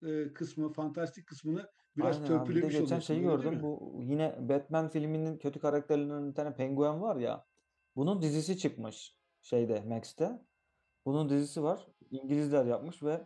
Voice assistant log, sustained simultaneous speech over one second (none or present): present